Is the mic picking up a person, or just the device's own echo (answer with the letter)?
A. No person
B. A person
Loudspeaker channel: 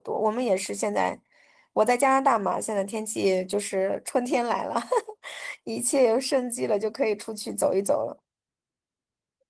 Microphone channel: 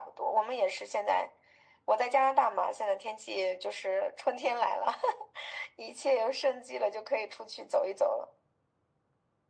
A